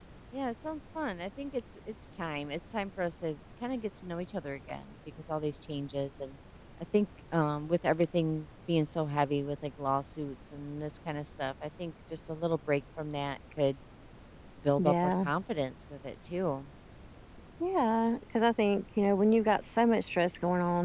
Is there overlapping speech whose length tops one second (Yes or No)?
No